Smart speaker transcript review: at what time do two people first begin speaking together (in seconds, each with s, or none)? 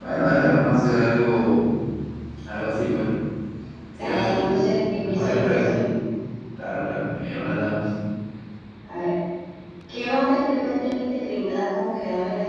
4.0 s